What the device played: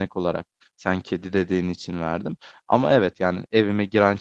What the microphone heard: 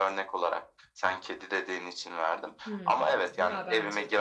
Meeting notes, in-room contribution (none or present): present